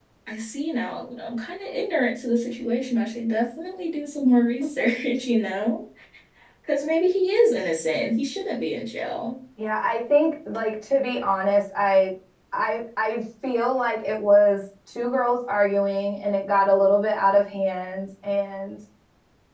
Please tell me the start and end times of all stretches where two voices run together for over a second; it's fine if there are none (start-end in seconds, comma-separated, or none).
none